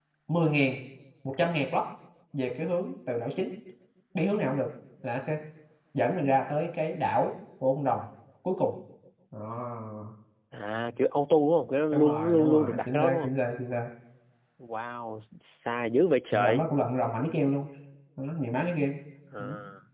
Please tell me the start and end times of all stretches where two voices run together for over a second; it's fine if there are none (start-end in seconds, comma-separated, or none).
11.9-13.3